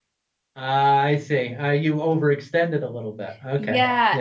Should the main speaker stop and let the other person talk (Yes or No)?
Yes